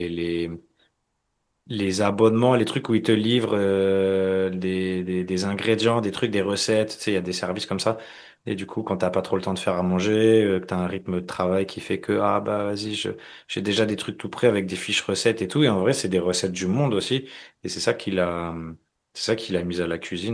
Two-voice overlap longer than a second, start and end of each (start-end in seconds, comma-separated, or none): none